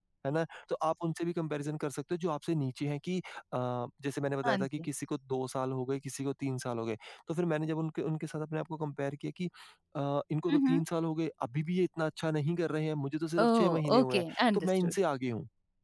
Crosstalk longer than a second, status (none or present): present